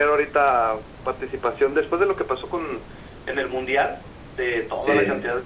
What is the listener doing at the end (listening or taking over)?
listening